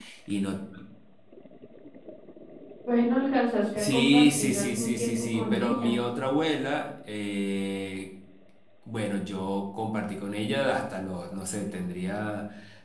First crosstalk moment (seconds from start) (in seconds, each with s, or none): 3.8 s